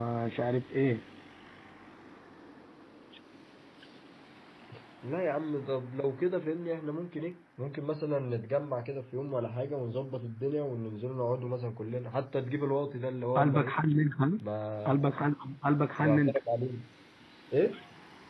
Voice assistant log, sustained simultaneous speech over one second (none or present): none